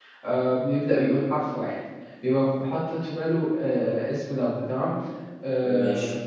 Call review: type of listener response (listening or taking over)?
listening